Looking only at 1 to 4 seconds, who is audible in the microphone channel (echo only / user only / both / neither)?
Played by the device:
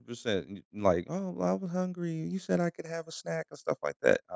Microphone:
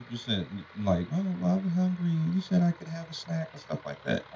echo only